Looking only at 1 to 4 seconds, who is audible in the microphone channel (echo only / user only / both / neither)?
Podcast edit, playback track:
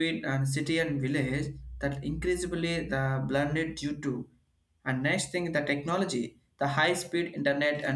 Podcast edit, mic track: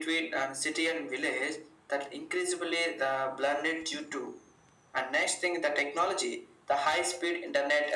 echo only